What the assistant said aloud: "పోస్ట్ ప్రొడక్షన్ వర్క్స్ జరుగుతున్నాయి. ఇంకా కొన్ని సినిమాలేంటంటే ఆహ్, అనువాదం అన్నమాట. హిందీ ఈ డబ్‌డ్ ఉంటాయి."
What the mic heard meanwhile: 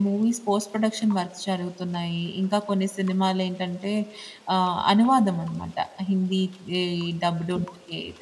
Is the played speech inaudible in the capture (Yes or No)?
No